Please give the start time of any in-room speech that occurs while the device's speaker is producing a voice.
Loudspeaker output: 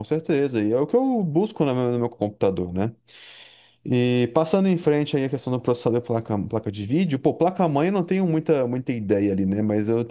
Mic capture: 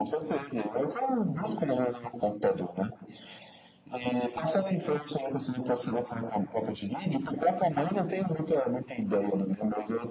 none

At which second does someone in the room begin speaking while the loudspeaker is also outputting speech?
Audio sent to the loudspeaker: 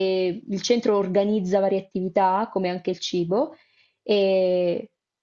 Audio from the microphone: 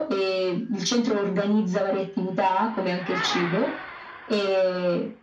none

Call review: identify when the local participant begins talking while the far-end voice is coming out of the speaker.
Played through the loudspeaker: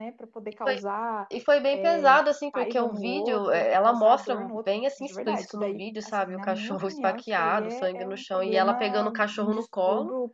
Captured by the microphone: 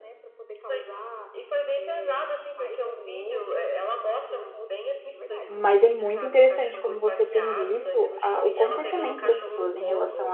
5 s

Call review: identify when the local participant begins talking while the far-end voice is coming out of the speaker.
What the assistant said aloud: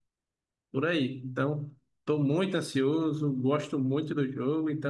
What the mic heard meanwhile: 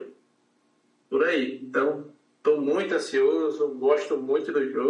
none

